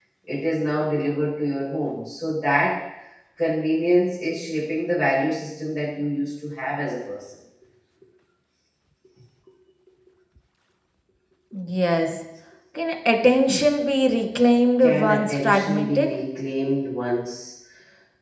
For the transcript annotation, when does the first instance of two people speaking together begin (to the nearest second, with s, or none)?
15 s